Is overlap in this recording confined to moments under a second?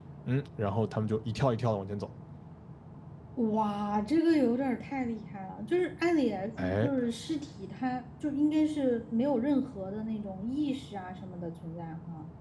Yes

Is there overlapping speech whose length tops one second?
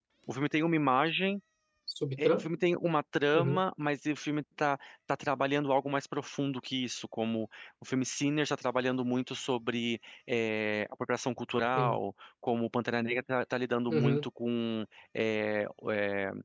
No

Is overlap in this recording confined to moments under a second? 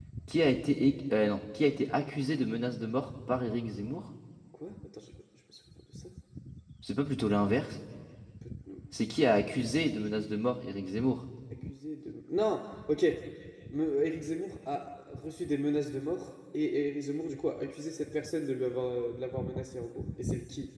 Yes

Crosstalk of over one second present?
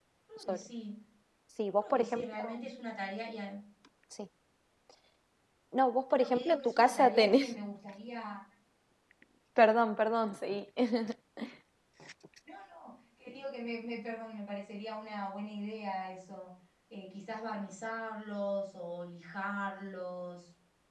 Yes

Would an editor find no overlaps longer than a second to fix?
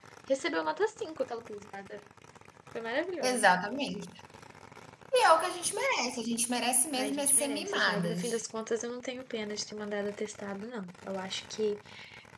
No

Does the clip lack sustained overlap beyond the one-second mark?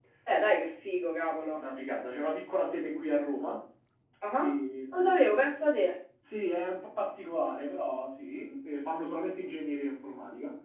Yes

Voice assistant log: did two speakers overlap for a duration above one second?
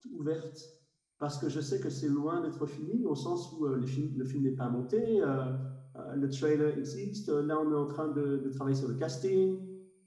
No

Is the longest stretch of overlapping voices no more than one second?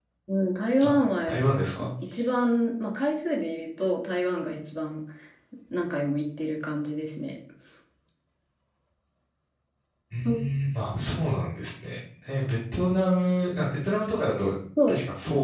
Yes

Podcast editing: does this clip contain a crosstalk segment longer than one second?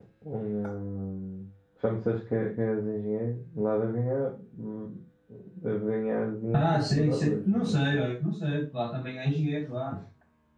Yes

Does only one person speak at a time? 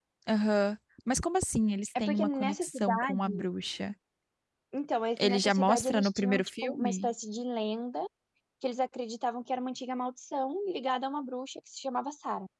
No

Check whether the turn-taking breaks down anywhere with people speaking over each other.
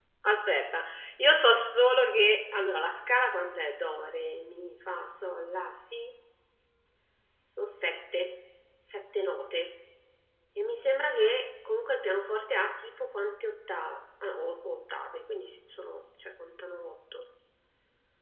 No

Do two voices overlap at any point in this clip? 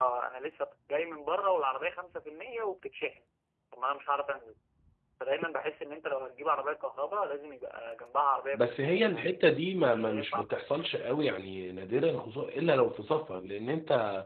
Yes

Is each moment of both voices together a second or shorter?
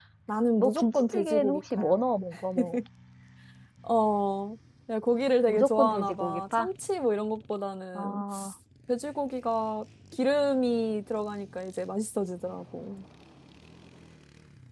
No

